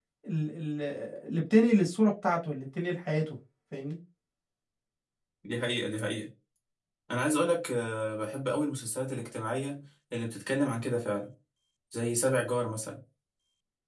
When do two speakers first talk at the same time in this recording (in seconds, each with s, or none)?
none